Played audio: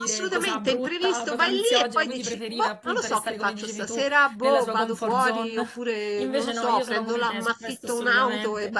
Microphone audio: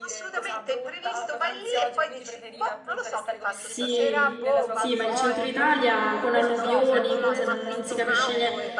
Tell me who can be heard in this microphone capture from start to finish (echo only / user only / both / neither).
both